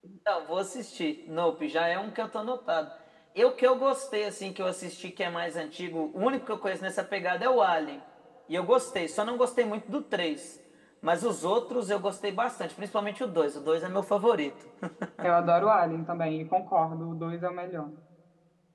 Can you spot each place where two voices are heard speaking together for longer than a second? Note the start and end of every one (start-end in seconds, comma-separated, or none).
none